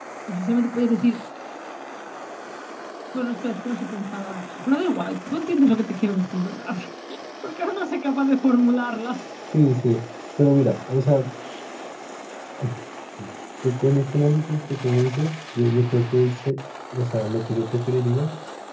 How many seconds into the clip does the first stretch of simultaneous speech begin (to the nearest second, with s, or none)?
none